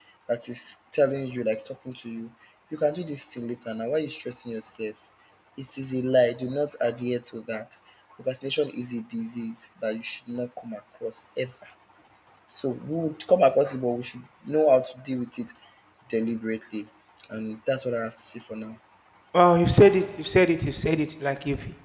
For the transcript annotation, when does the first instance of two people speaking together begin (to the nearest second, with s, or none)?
none